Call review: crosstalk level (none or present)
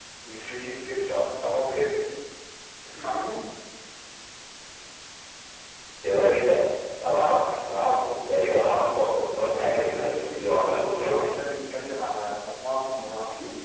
present